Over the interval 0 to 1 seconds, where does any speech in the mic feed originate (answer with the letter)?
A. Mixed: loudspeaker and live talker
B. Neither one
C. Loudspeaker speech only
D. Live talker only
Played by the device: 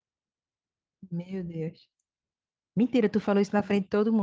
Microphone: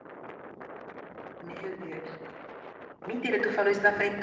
B